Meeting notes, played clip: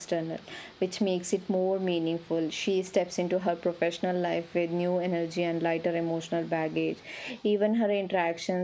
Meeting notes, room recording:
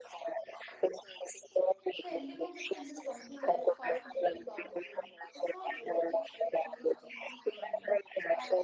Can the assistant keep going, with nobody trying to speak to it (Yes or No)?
No